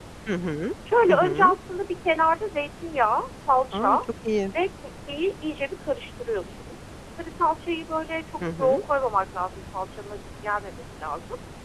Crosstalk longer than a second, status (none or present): none